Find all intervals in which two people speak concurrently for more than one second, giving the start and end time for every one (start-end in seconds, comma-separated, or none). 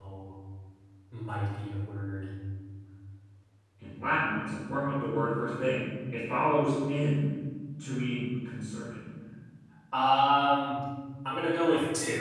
none